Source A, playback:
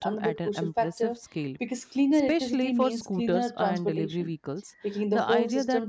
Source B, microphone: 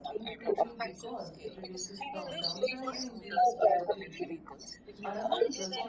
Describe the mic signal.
both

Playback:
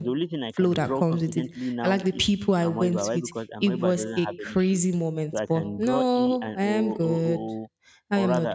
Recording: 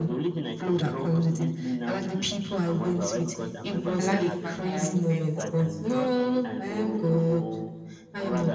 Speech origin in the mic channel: both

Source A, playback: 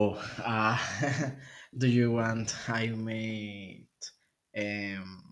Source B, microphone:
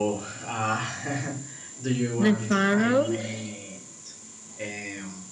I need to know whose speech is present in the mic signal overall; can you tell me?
both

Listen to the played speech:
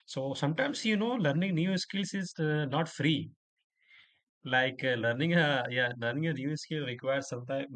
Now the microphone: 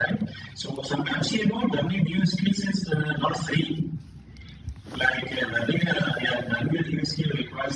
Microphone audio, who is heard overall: echo only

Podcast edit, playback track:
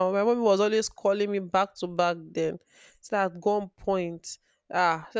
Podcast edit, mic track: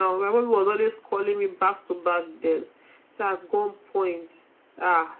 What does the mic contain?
echo only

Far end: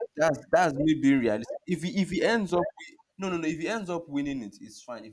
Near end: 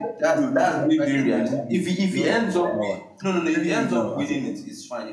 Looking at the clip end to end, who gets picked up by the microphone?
both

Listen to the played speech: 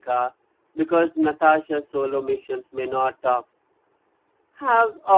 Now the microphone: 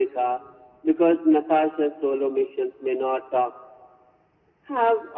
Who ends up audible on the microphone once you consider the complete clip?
echo only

